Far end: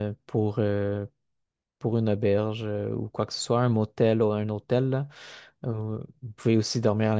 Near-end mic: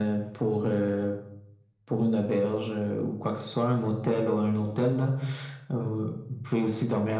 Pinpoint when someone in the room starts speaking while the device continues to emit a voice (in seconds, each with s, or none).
none